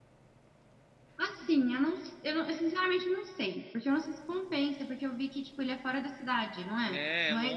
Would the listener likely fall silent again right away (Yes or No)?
No